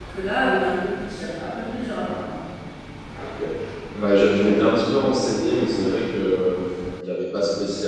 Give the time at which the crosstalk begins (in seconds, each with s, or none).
none